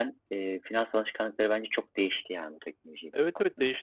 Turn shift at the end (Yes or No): Yes